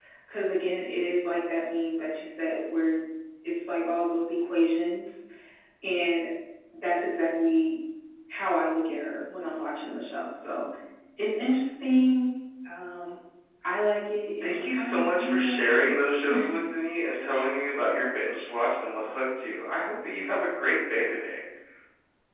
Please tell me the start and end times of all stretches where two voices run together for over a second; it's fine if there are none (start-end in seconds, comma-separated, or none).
14.4-16.0